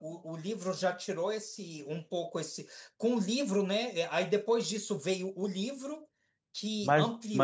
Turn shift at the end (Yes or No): Yes